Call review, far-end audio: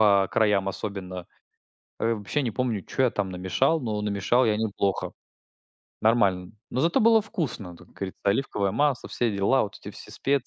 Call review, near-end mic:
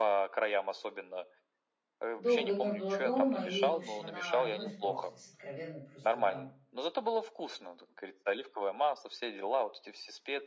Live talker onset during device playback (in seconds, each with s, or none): 2.1 s